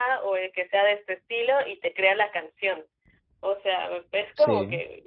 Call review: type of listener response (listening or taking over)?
listening